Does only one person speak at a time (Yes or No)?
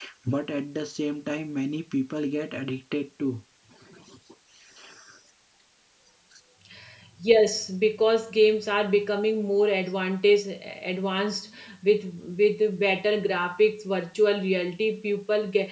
Yes